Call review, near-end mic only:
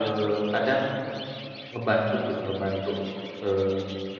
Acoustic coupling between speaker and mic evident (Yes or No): Yes